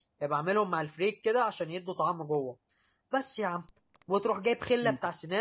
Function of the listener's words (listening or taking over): listening